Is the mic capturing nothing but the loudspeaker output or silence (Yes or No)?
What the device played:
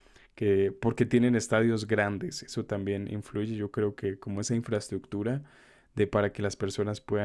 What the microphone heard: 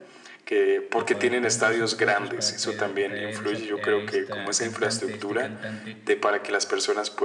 No